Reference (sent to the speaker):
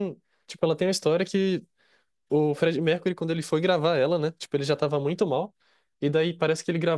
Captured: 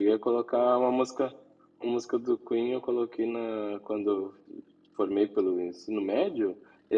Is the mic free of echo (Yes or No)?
Yes